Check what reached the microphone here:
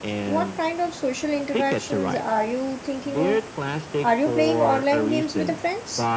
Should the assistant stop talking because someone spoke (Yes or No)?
Yes